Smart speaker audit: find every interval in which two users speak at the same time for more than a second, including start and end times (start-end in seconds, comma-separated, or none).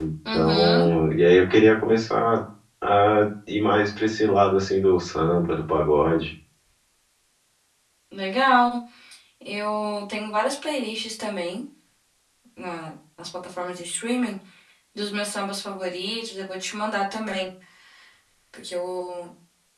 none